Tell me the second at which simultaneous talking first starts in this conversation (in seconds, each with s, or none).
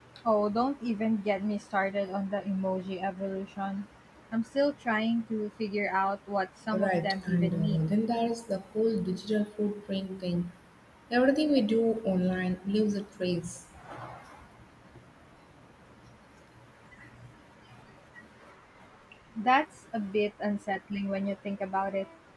6.7 s